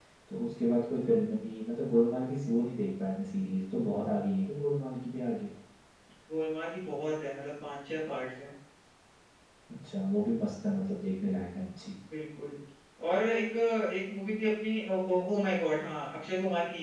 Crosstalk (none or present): none